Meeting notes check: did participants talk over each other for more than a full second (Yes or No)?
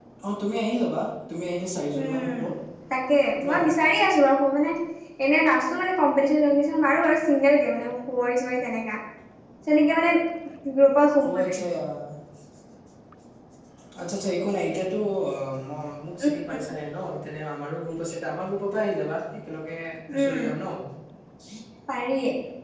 No